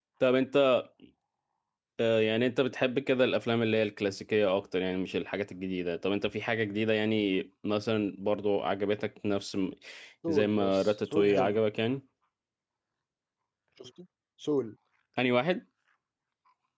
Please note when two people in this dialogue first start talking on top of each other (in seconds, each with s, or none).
10.3 s